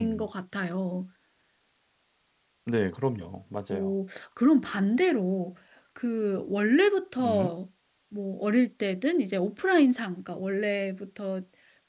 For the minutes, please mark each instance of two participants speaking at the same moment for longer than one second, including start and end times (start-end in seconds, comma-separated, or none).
none